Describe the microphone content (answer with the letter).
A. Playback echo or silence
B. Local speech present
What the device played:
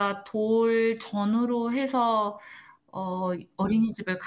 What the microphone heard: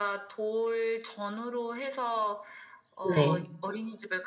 B